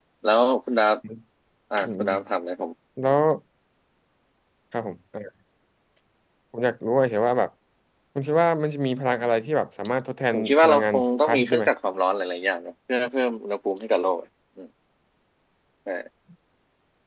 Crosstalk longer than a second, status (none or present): present